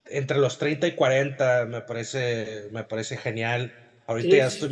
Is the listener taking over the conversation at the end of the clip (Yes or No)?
No